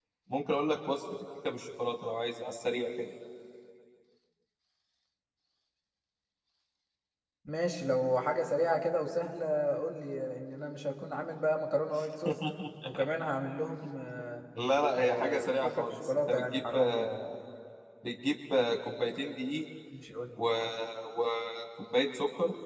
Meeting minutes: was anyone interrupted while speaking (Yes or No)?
Yes